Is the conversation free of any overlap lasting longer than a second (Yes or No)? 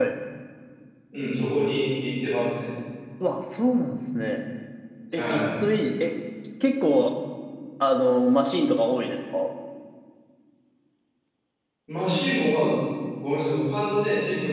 Yes